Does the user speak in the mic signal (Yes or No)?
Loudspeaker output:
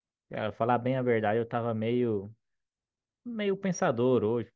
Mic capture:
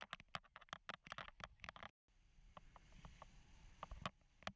No